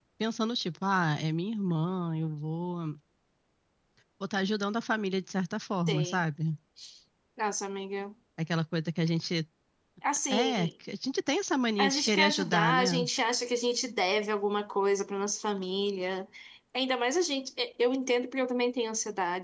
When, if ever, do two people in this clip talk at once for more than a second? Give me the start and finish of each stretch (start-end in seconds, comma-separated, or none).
11.8-13.1